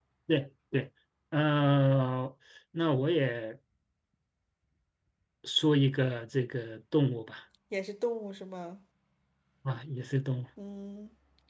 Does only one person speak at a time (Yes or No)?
Yes